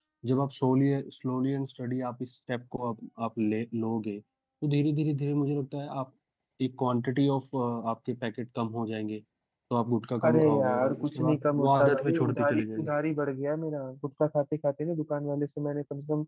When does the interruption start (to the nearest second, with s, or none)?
10 s